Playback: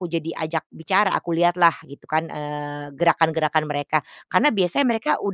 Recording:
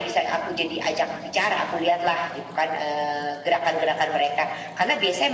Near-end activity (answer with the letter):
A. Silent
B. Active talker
A